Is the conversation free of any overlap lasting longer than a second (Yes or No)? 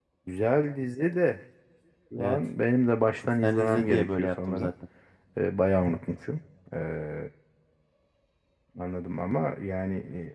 No